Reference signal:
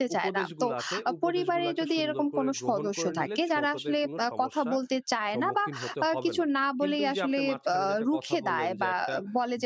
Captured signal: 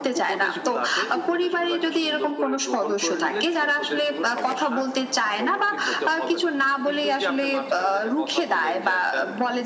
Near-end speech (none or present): none